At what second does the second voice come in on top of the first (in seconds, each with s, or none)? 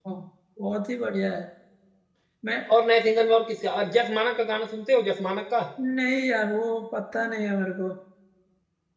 none